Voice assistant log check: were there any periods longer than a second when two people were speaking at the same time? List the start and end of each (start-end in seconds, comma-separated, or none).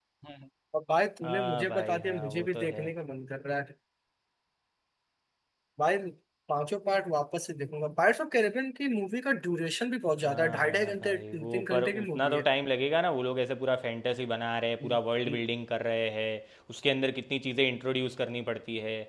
1.2-2.9, 10.2-12.4